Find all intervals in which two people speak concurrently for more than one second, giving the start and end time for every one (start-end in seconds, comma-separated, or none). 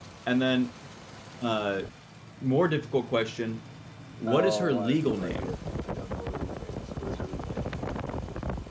4.3-5.5